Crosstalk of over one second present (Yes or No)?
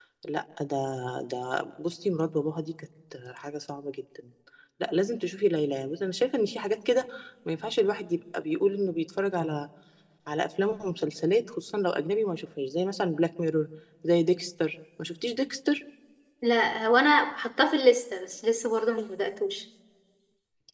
No